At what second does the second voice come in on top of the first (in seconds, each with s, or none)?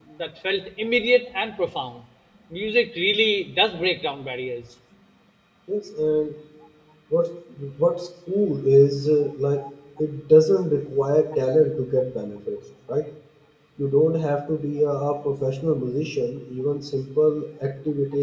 none